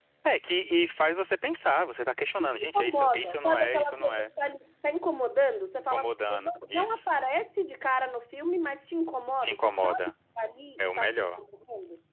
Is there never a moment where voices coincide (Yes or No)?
No